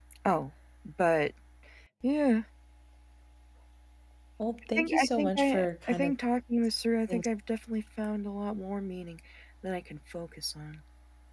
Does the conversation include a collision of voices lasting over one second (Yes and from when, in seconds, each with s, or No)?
Yes, from 4.8 s